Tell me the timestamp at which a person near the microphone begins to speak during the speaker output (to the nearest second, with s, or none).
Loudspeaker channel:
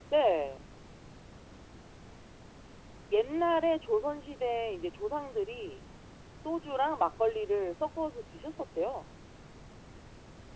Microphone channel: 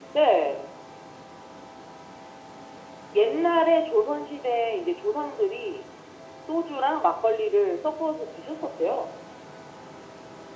none